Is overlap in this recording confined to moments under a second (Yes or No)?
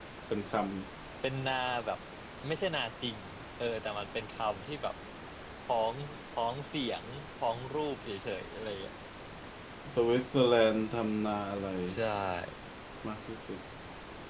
Yes